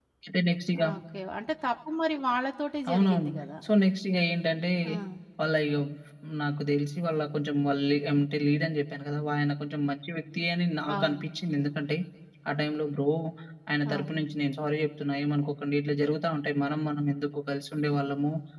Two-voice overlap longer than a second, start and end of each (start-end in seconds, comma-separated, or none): none